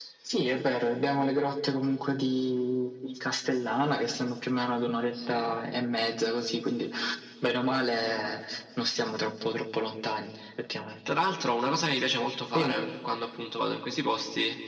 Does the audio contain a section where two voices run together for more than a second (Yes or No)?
No